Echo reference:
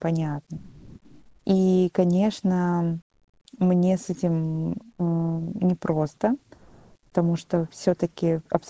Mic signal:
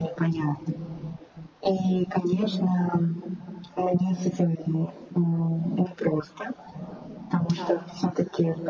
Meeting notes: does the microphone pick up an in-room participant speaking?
Yes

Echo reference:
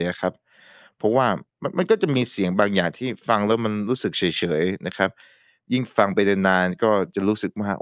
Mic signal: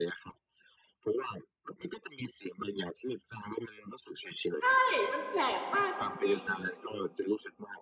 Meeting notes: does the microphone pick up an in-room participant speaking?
Yes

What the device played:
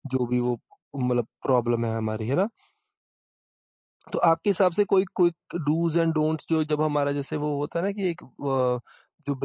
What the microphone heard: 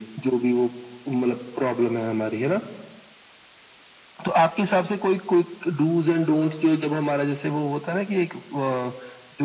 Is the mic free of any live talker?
Yes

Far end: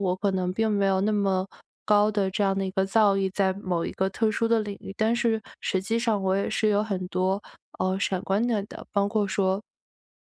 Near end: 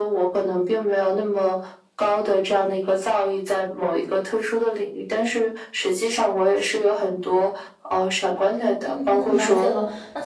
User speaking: Yes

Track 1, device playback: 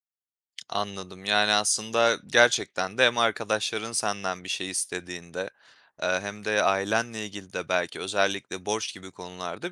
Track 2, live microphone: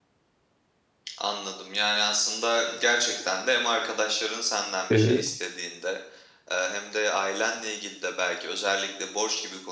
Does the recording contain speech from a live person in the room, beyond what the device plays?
Yes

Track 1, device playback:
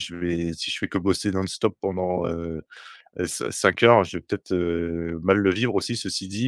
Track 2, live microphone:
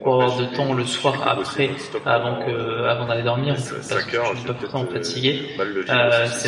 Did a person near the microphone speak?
Yes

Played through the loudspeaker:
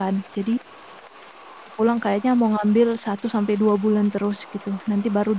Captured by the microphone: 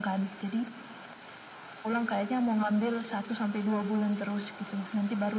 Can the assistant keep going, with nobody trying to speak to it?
Yes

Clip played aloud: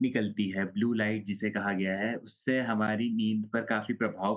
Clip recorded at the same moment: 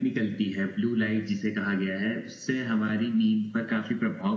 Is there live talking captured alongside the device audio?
No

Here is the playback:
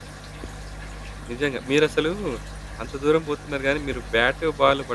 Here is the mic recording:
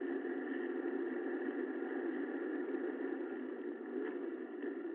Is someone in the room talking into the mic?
No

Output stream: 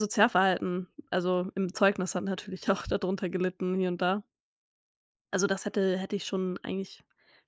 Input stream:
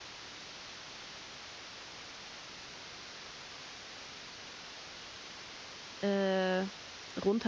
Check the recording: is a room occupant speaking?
Yes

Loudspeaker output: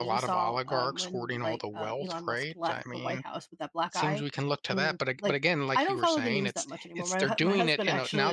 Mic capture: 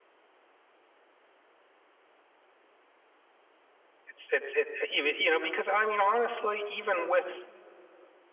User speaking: Yes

